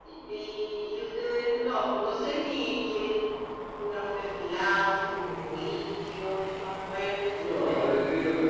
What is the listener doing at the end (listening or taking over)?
taking over